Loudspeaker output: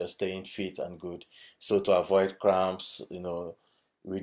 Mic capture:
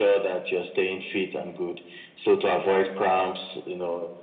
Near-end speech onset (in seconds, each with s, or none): none